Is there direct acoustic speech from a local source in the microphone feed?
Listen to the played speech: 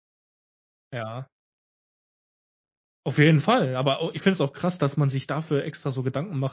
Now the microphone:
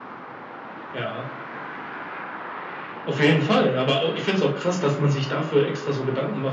No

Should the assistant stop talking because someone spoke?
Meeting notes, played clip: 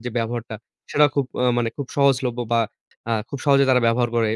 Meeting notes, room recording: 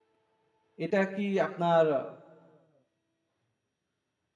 Yes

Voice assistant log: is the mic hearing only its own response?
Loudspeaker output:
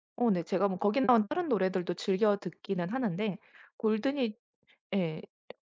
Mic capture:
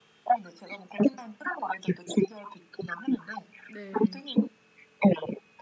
No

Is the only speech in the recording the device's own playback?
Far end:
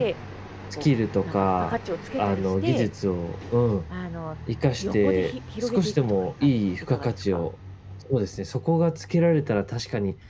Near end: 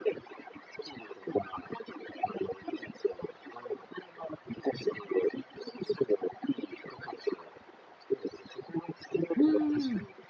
No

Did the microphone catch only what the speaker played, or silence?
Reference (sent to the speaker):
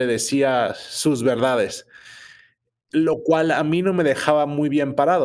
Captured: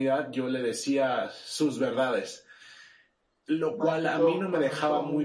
No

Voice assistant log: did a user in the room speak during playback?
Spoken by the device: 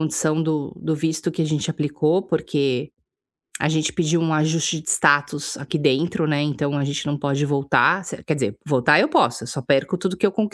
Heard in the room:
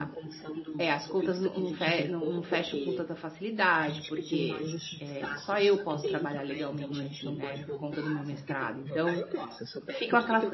Yes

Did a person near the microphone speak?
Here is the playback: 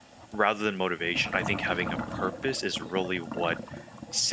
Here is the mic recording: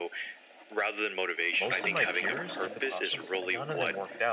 Yes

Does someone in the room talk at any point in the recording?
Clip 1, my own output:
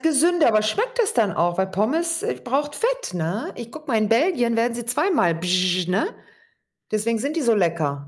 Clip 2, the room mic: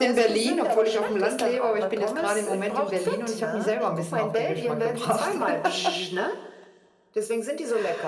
Yes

